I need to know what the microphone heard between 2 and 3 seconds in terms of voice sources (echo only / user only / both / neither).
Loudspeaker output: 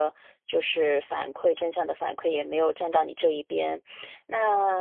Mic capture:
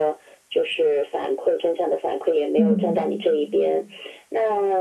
both